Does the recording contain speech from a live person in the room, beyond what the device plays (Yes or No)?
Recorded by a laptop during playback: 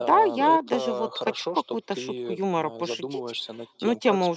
Yes